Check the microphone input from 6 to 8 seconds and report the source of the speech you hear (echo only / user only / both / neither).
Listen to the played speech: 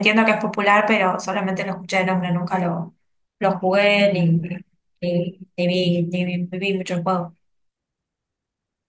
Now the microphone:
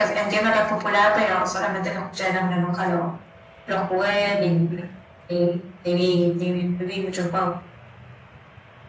echo only